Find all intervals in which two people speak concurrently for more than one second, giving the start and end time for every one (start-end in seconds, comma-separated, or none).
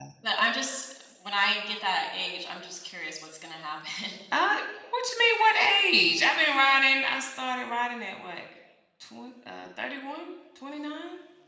none